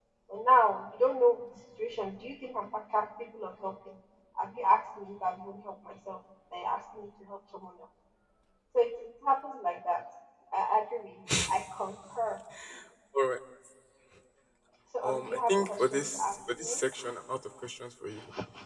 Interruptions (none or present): present